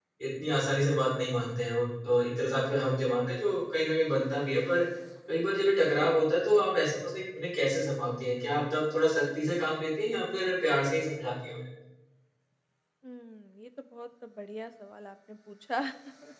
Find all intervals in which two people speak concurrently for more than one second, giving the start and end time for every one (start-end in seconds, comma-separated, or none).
none